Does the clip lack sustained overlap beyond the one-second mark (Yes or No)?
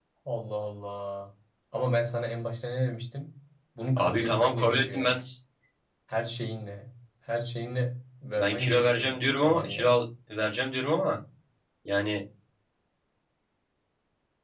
No